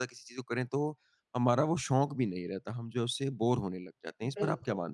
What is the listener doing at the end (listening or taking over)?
taking over